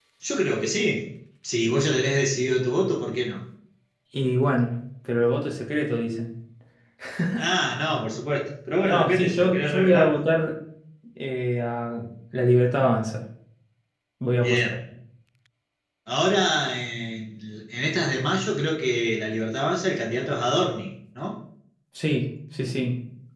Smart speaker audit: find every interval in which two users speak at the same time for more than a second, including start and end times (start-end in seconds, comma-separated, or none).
8.8-10.2